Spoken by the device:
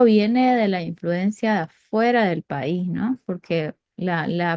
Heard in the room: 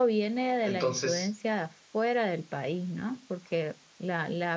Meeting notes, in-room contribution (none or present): present